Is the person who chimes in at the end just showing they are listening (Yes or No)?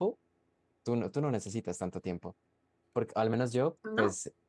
Yes